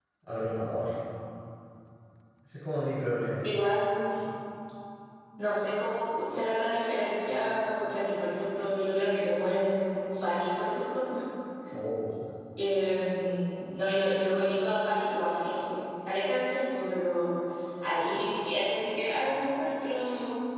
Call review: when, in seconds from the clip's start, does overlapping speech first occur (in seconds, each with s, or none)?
none